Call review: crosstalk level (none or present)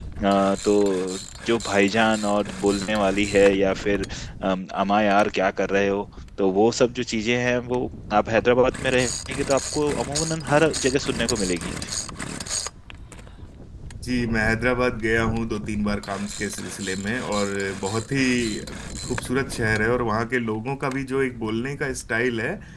none